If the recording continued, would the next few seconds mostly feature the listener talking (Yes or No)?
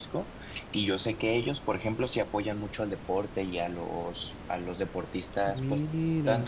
No